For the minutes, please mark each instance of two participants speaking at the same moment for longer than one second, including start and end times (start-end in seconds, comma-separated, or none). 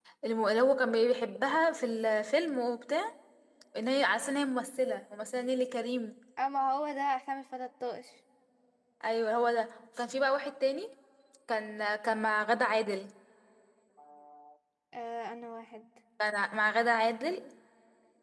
none